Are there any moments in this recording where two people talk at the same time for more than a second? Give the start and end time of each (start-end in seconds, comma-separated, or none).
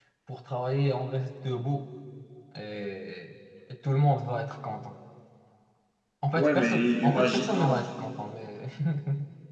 6.3-7.8